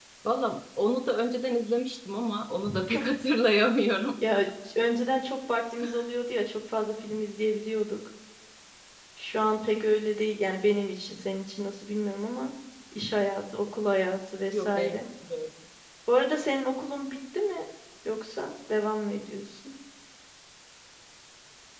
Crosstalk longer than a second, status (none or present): none